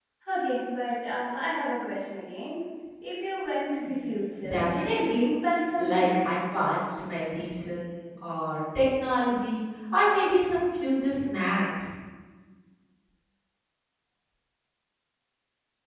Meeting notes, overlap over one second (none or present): present